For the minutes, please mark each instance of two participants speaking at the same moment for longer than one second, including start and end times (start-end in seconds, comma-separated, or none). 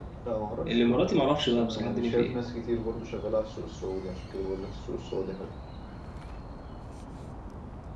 0.7-2.4